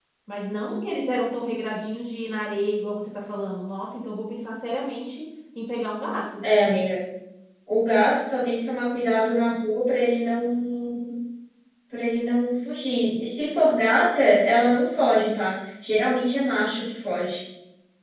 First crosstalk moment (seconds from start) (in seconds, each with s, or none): none